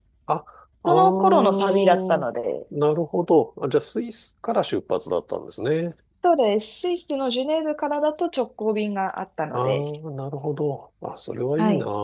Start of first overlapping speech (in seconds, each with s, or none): 0.9 s